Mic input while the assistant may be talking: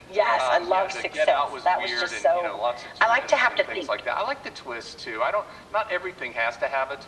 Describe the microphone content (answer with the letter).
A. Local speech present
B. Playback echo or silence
B